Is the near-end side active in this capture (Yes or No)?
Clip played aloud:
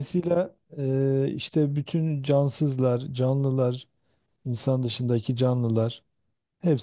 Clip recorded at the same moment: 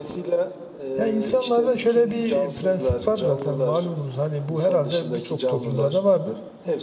Yes